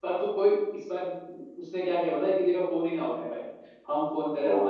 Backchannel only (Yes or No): Yes